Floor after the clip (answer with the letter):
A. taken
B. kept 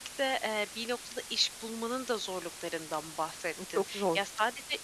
B